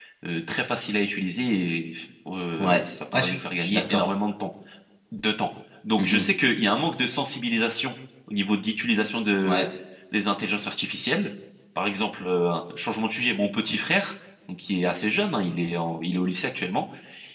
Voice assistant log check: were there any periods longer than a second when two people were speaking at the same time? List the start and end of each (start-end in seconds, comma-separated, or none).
2.6-4.1